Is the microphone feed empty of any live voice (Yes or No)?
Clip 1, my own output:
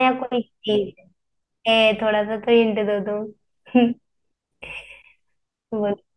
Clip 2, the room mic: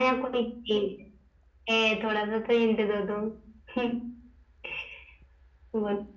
Yes